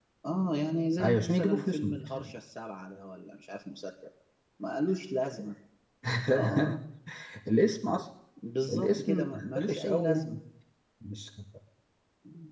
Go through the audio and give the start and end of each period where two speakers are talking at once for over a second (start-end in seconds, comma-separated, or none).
1.0-2.3, 8.7-10.4